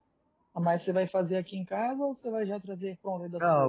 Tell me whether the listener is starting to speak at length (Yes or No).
Yes